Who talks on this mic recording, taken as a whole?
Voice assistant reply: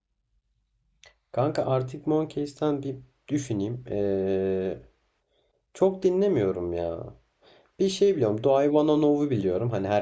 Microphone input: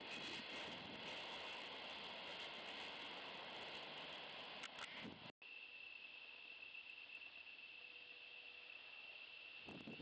neither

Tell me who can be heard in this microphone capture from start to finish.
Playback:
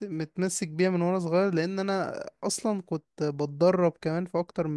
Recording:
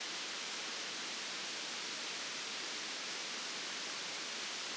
neither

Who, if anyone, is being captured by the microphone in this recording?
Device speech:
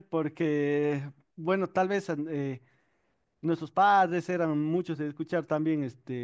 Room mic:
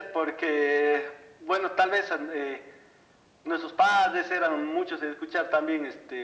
echo only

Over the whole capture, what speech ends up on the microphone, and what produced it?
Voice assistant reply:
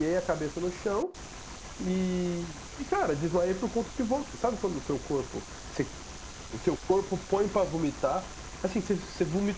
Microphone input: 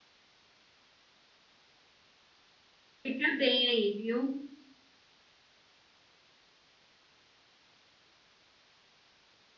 user only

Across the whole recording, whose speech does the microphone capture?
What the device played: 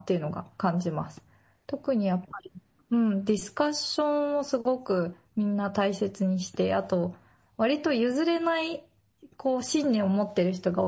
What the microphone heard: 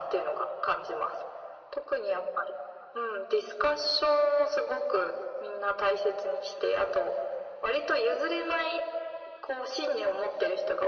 echo only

